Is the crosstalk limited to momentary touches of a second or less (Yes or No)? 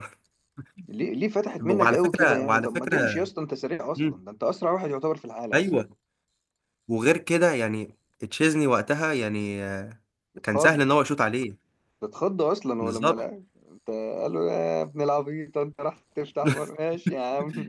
No